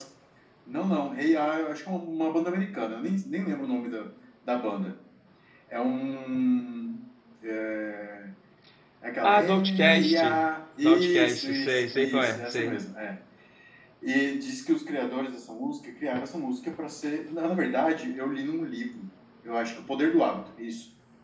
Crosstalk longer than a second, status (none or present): present